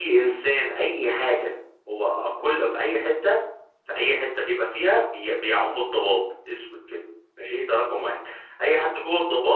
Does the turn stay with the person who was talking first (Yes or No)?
Yes